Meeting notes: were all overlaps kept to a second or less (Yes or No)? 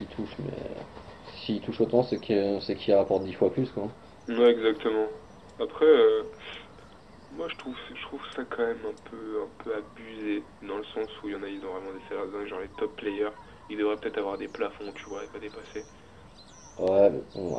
Yes